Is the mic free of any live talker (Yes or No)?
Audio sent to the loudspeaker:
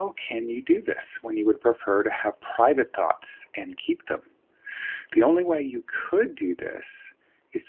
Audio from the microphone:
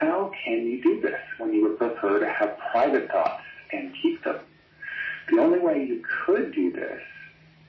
Yes